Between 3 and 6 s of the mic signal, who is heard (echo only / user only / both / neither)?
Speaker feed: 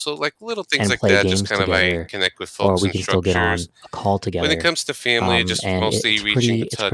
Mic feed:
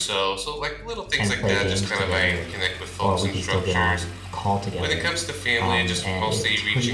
echo only